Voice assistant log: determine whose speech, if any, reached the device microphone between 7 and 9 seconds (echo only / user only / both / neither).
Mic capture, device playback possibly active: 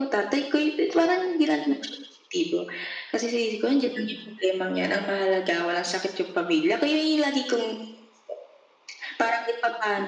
echo only